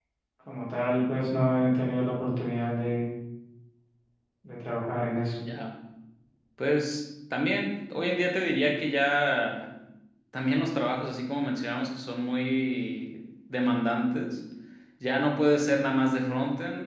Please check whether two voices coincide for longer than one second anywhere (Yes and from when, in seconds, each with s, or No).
No